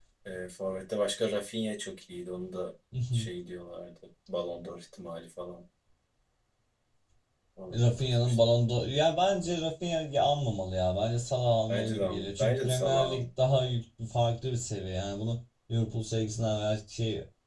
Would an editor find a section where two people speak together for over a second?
Yes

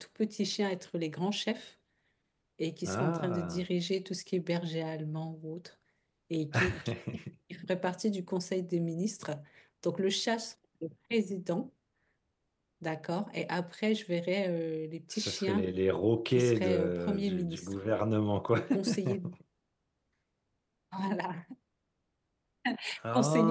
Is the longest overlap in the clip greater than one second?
Yes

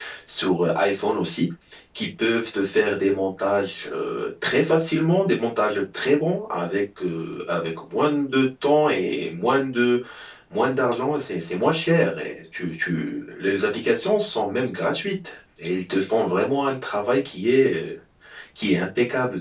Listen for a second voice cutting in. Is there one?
No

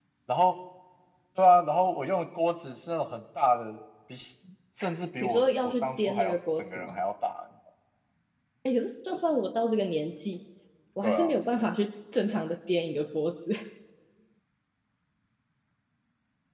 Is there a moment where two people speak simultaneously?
Yes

